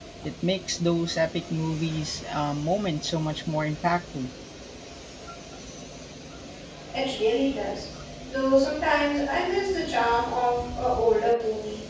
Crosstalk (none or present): none